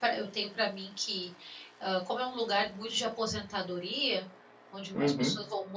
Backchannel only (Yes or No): Yes